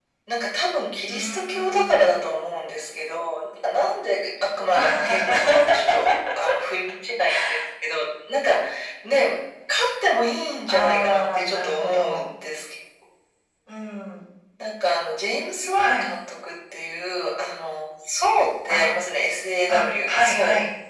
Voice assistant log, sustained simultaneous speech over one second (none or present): present